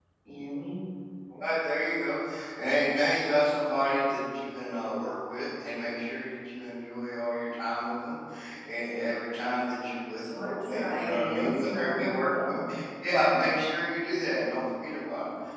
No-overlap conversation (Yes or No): No